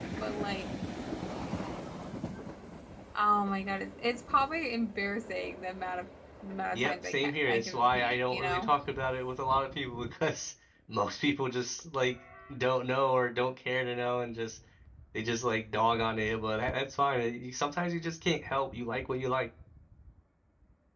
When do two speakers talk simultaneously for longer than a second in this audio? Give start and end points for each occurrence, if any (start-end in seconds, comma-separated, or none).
6.7-8.7